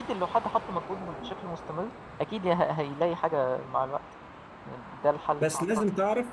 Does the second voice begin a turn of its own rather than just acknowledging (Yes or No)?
Yes